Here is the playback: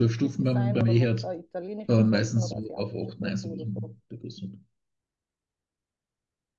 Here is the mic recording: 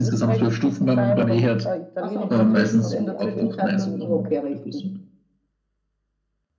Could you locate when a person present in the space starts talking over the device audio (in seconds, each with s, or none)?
2.0 s